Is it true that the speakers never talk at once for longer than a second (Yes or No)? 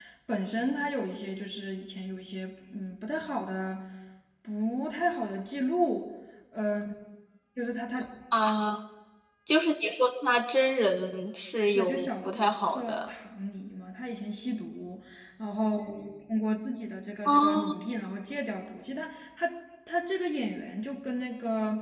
No